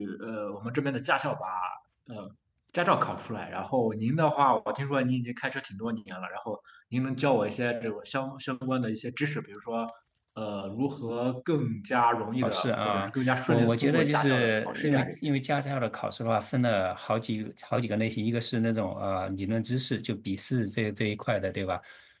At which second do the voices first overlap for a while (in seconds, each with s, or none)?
12.4 s